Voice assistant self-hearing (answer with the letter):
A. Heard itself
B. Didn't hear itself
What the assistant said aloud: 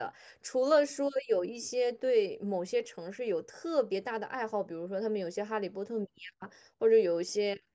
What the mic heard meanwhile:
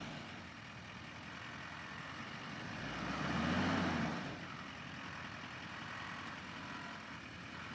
B